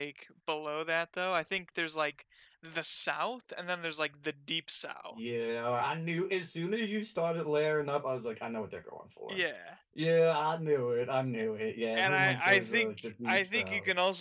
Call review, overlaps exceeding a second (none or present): present